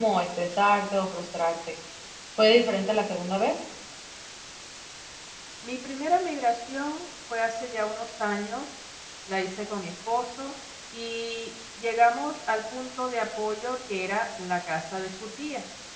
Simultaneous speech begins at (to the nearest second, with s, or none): none